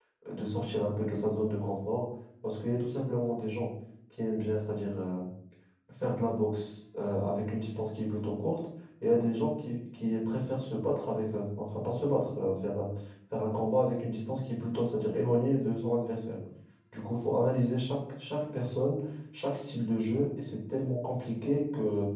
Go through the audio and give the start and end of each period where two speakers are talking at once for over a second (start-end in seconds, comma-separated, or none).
none